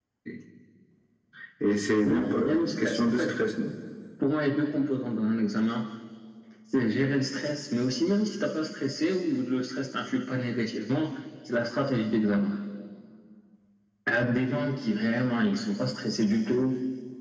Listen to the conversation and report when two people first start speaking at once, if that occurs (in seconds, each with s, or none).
2.0 s